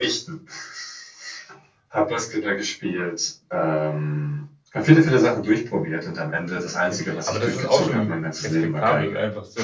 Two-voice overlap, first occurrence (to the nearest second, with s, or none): 7 s